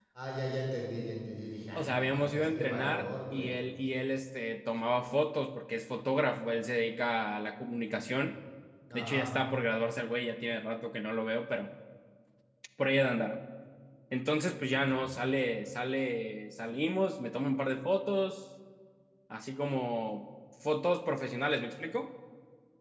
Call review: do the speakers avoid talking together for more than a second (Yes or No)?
No